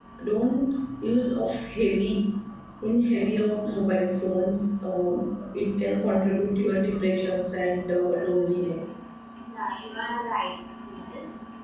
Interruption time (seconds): none

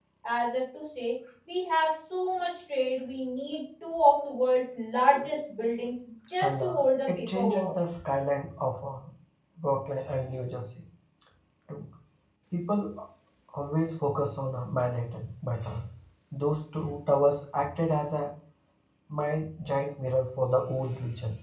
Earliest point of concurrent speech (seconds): 6.4 s

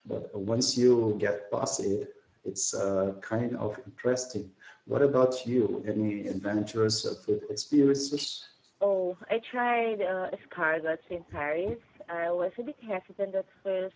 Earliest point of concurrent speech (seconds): none

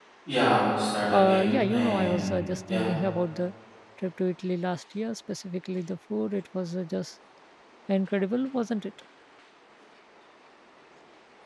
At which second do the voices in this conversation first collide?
1.1 s

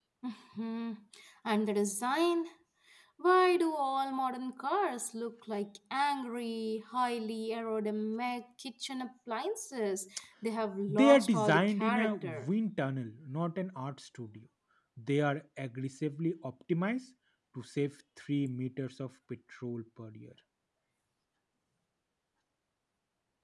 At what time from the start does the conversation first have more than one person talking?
10.9 s

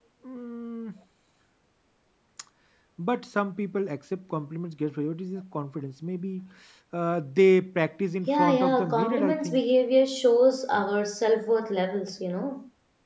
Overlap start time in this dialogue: 8.3 s

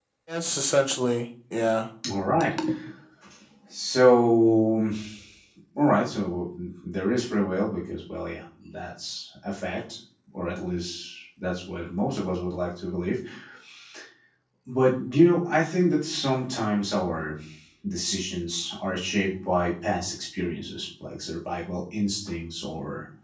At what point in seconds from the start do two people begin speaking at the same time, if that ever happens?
none

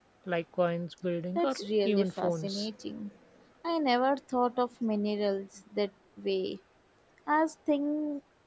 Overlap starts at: 1.4 s

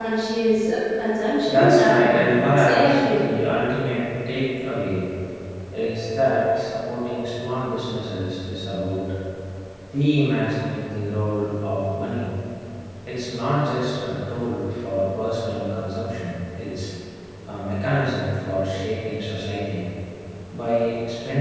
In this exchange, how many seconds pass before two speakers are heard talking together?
1.5 s

